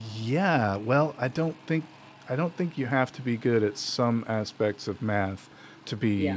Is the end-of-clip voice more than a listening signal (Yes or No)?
No